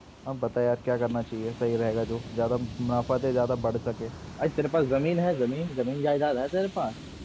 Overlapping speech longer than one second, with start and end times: none

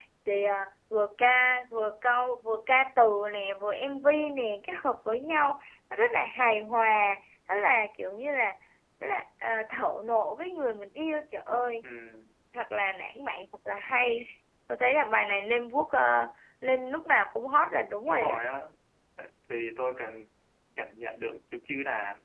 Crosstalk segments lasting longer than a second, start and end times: none

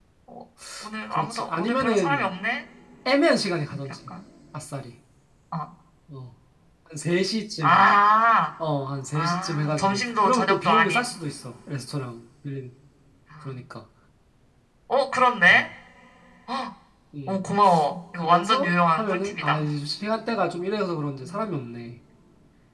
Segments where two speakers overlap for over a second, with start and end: 1.1-2.3, 9.2-11.1, 18.1-19.6

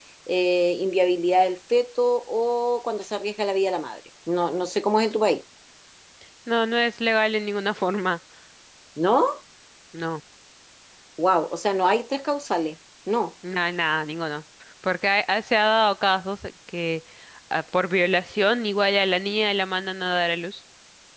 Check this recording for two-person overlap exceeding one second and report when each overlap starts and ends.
none

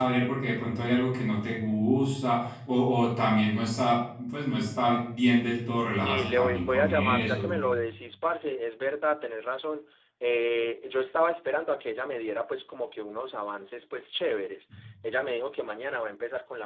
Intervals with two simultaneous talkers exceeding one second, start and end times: 6.0-7.6

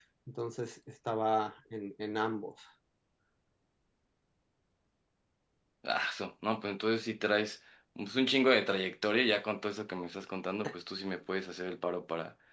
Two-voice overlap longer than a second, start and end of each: none

